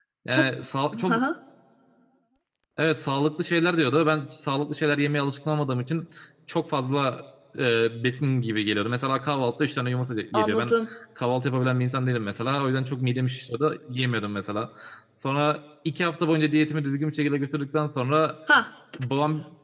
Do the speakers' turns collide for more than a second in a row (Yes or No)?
No